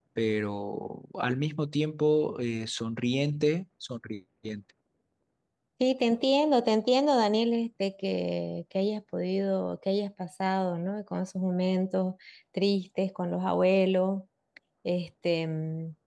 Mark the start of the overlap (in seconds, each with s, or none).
none